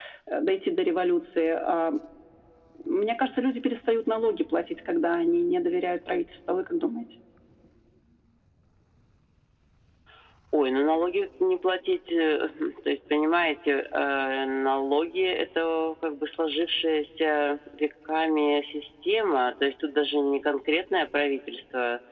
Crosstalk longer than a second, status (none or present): none